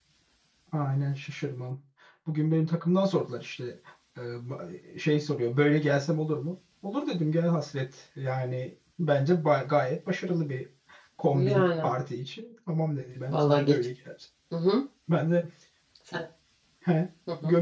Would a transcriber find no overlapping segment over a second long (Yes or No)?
Yes